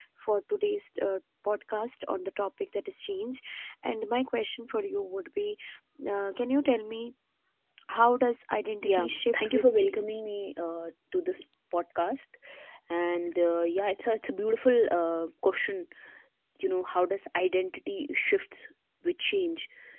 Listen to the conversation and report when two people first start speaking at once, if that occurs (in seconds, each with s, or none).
8.8 s